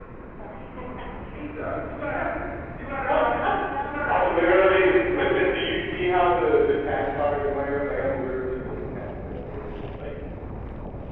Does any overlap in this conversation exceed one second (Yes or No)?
Yes